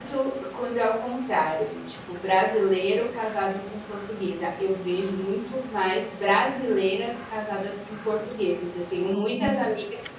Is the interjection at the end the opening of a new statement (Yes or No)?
No